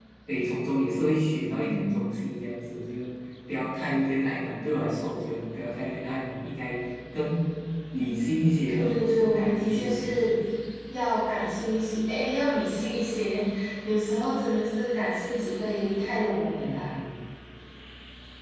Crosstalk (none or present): present